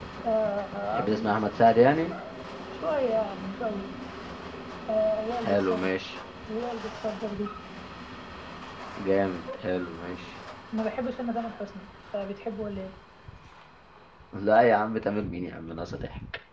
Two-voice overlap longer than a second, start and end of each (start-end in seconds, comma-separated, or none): none